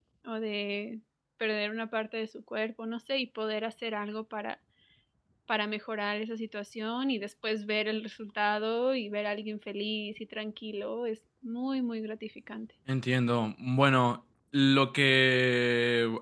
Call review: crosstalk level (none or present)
none